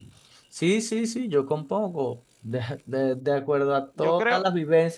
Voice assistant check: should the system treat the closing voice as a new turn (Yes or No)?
No